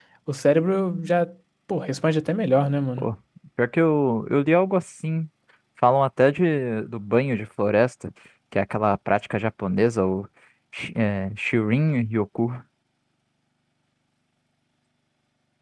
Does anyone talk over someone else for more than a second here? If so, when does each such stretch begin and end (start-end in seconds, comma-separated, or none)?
none